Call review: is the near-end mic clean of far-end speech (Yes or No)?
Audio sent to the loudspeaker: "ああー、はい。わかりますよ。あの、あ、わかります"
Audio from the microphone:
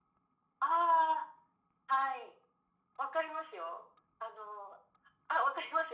No